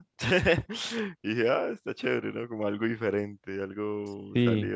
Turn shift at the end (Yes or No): Yes